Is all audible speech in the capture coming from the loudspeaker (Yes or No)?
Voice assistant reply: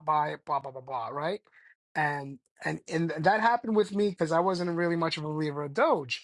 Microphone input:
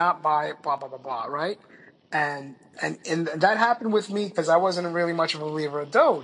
Yes